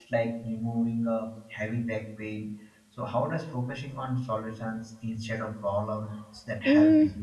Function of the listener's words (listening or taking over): taking over